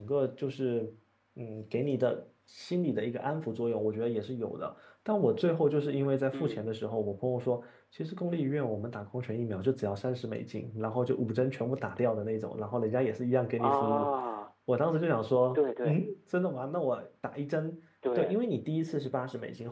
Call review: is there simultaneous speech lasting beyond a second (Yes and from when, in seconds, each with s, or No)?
No